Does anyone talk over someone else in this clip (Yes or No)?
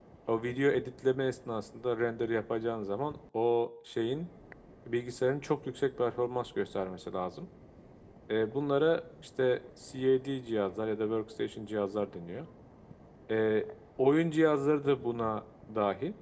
No